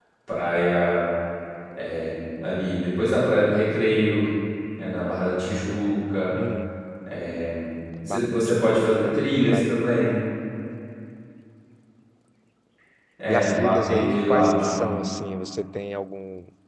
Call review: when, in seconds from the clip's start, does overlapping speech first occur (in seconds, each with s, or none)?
8.1 s